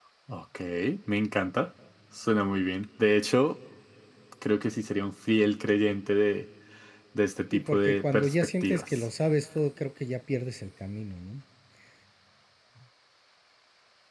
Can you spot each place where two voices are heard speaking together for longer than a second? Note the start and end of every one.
7.5-9.1

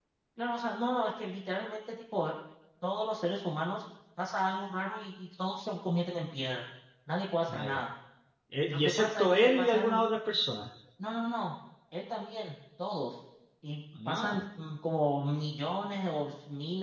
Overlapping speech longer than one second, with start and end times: 8.6-10.1

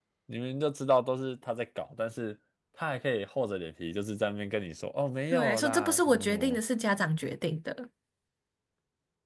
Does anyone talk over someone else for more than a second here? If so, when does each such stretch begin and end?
5.3-6.6

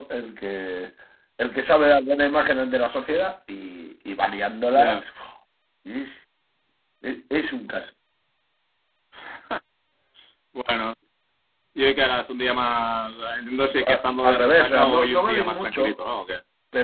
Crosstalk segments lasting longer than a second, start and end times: 13.9-15.9

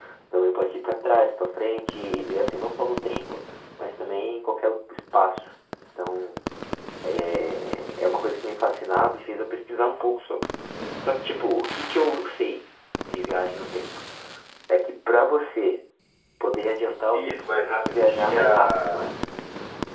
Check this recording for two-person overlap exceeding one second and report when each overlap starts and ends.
17.1-19.1

